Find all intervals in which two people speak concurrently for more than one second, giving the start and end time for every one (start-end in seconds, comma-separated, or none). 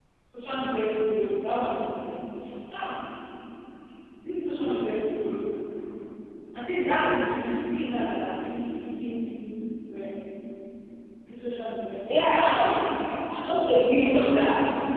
none